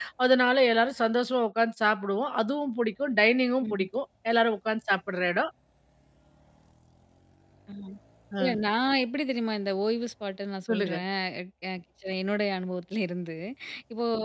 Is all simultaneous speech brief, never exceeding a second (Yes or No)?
Yes